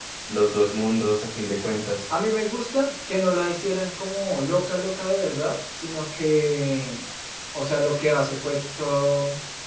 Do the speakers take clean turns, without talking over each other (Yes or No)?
Yes